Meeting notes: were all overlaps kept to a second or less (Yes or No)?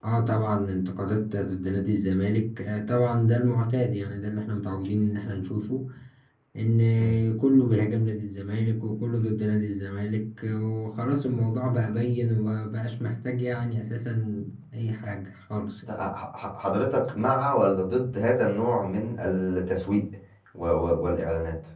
Yes